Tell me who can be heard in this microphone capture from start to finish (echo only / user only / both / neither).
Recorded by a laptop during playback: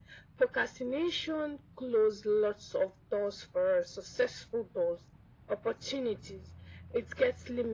echo only